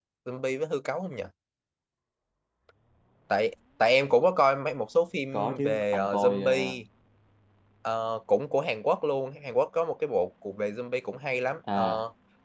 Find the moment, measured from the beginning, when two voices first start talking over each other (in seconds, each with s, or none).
5.3 s